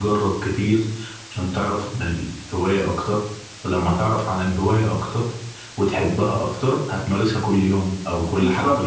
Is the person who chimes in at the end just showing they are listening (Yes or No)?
No